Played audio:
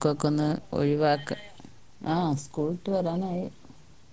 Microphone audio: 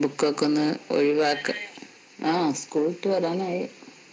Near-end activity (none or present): none